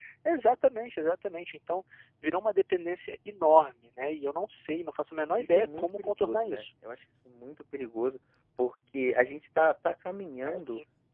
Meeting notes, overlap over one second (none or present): present